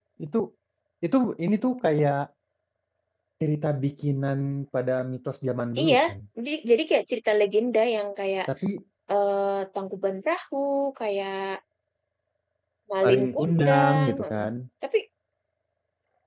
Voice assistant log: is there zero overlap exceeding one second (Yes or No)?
No